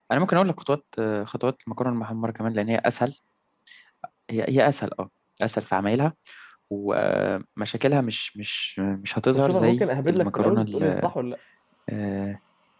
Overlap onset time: 9.3 s

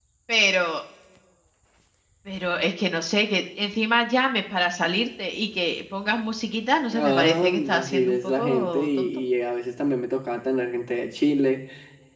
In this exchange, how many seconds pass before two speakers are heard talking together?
6.9 s

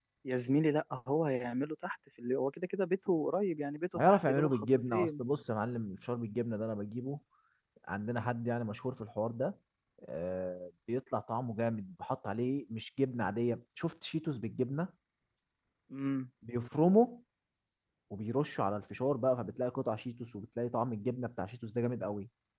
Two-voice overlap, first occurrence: 3.9 s

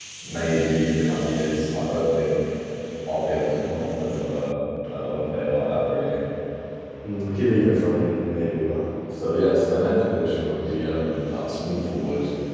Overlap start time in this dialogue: none

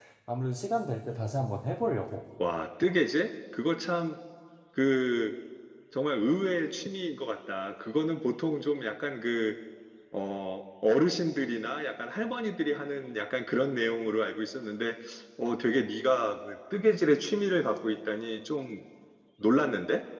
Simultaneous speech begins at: none

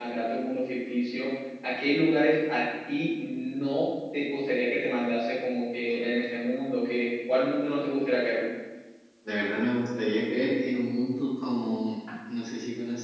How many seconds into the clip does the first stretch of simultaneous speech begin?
none

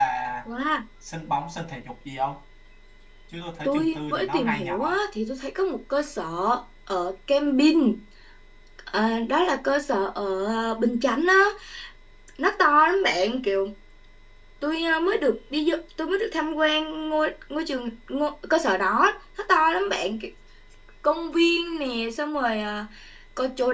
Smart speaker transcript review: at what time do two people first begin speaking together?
3.6 s

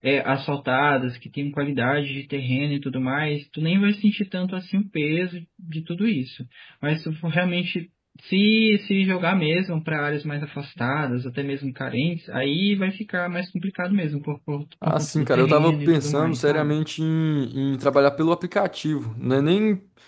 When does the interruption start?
14.8 s

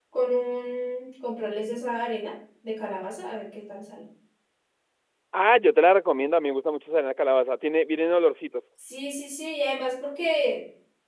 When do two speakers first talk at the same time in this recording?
none

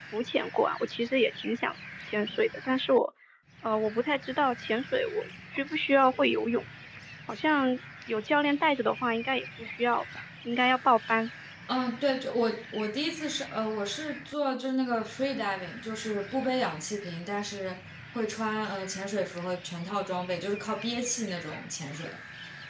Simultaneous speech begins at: none

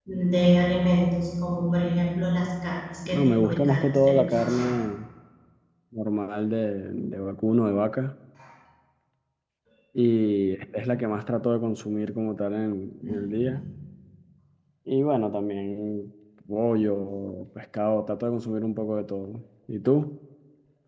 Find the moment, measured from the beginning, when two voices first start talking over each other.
3.0 s

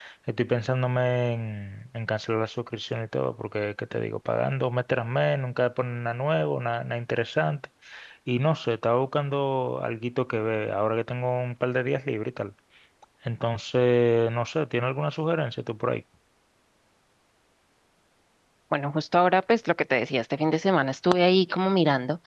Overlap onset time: none

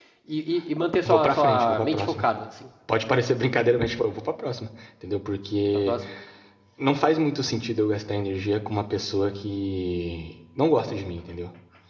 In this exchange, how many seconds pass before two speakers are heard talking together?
1.1 s

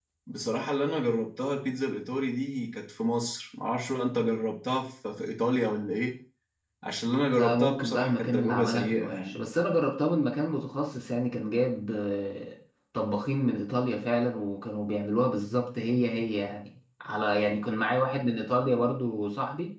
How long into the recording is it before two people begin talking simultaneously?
7.4 s

